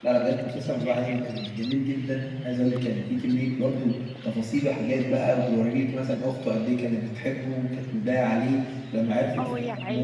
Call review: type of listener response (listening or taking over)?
taking over